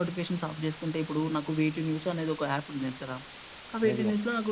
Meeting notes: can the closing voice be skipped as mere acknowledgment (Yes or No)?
Yes